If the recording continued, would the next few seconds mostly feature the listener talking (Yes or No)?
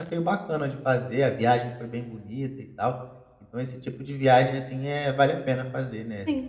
Yes